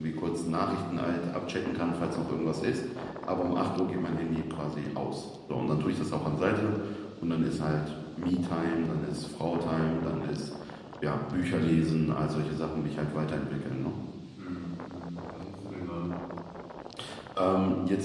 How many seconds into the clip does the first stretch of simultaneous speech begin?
none

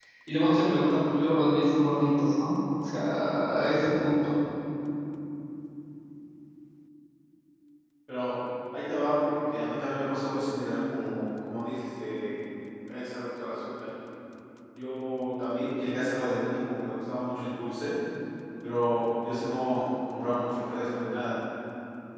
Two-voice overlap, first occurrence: none

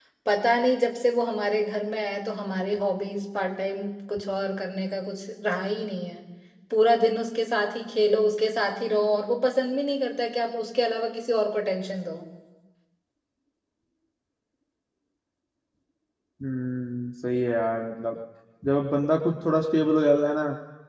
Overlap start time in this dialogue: none

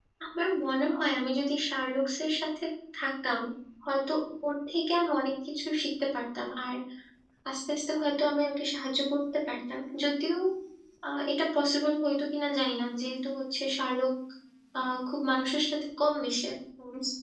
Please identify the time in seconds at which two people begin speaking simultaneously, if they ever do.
none

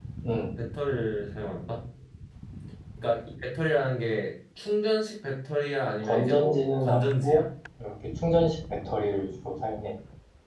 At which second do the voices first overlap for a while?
6.0 s

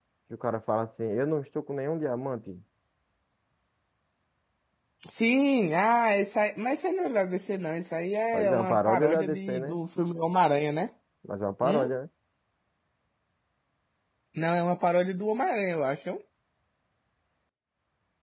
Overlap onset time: 8.3 s

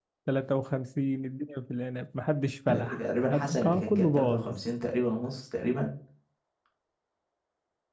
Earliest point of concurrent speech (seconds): 2.7 s

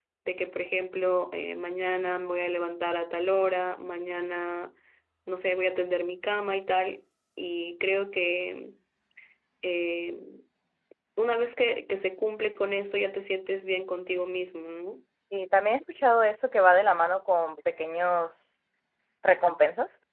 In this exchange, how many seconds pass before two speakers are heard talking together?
none

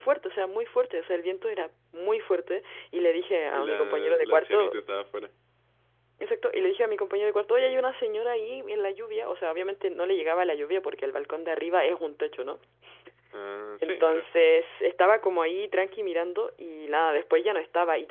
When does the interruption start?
3.5 s

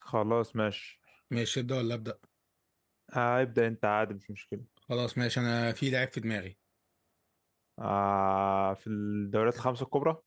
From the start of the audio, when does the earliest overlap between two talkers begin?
none

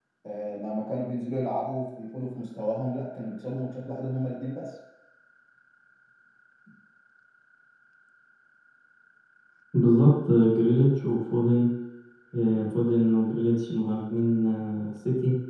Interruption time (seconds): none

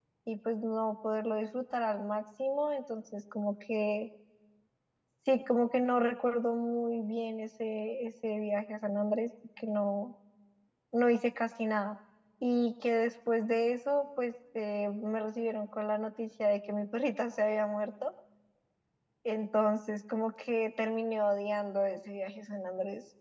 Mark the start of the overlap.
none

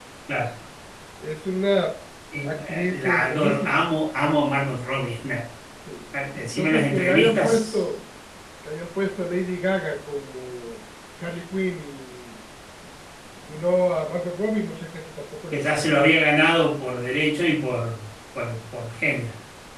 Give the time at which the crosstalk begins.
2.4 s

